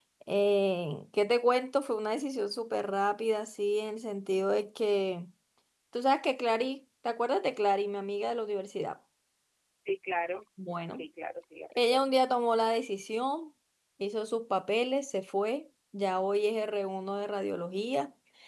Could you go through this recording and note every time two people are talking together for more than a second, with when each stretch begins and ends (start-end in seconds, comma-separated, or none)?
none